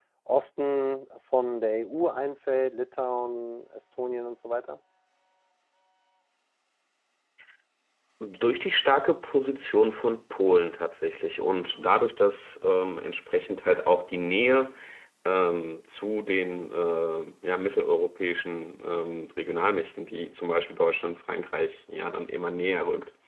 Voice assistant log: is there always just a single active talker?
Yes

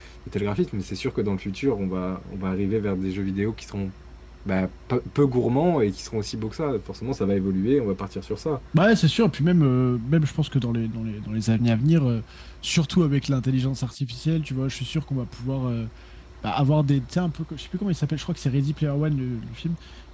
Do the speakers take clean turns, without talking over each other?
Yes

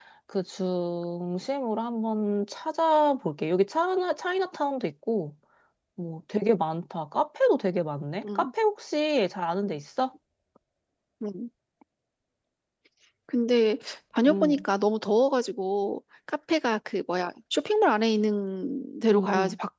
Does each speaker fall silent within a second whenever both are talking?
Yes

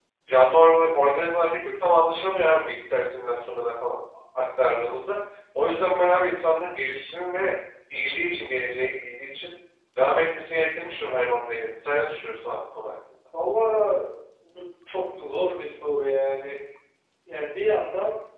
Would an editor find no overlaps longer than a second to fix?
Yes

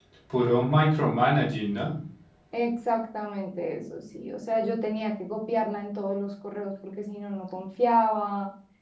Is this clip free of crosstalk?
Yes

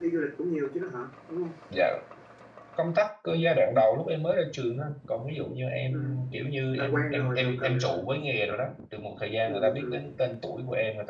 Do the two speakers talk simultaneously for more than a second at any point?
Yes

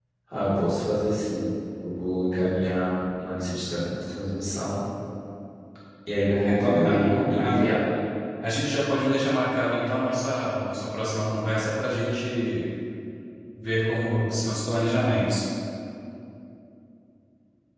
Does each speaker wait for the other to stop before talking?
No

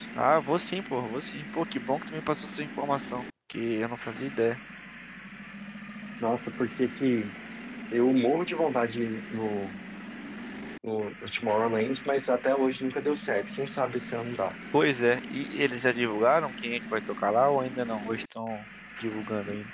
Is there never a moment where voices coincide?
Yes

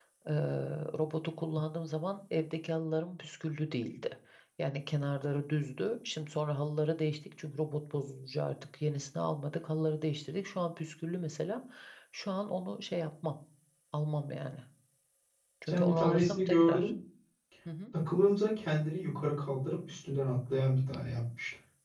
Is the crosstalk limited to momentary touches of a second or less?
No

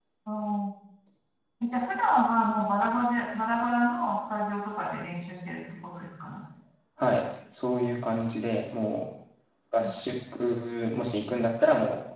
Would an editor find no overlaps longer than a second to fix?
Yes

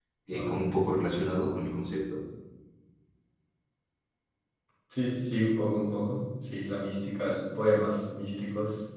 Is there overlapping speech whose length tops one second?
No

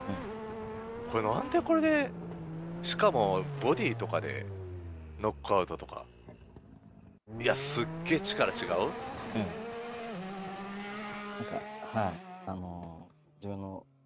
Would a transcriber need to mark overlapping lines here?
No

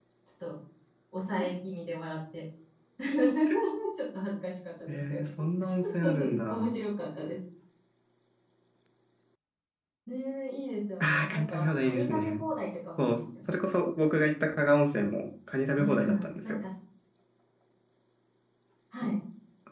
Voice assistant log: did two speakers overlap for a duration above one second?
Yes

